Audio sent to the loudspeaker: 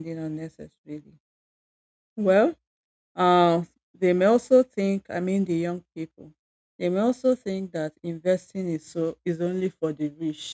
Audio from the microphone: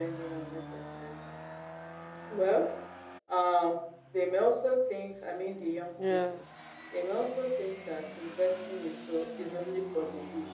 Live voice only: Yeah.

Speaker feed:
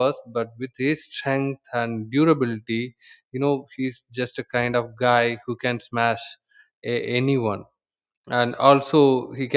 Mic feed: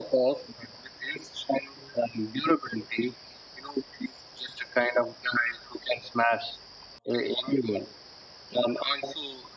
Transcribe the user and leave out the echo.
none

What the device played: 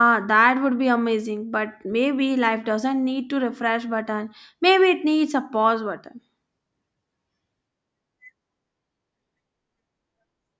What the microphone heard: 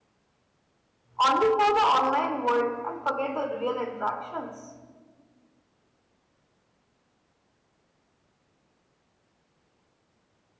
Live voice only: only for the online world and forget the real interactions

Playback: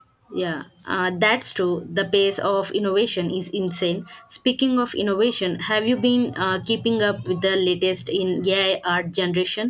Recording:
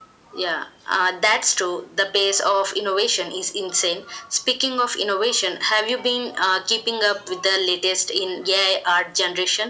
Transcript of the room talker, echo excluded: none

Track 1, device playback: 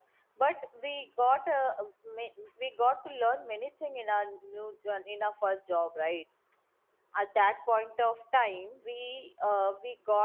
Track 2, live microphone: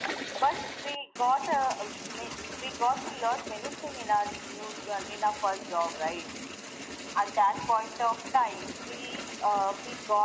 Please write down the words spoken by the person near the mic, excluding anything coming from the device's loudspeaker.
none

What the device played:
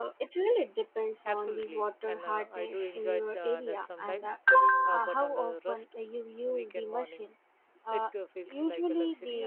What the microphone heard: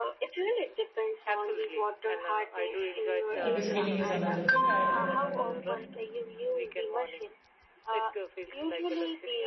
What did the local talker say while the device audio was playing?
Uh, descaling is another thing I

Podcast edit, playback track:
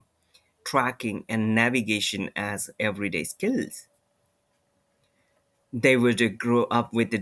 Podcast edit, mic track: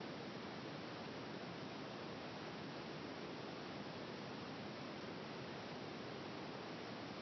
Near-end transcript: none

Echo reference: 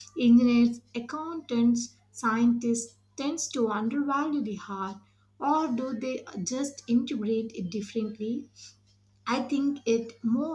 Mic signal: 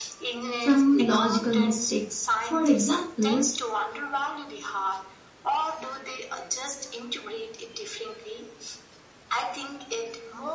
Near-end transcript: from logical mistakes. For example,

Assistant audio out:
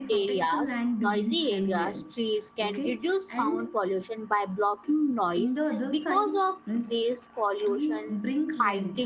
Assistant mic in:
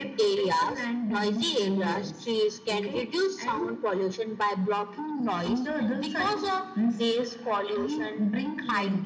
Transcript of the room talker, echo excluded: none

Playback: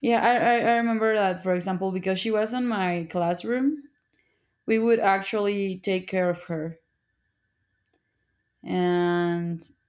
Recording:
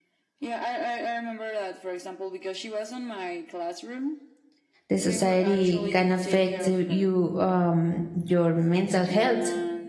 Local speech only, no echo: the society can affect uh, you um, your mental health.

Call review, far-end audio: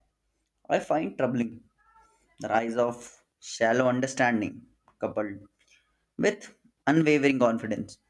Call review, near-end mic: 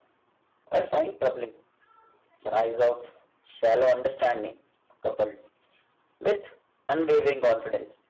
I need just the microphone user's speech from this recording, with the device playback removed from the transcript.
none

